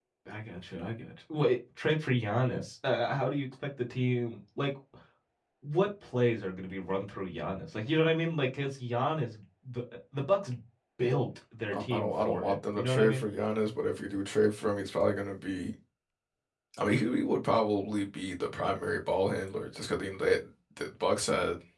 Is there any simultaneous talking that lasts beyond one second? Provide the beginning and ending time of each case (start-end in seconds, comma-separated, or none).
11.7-13.2